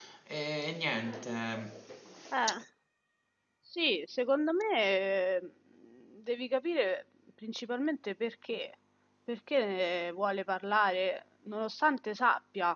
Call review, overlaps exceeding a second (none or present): none